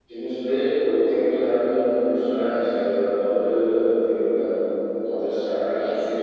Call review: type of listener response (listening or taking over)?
taking over